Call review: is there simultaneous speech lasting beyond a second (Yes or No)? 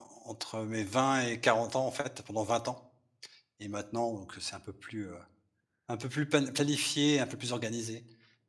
No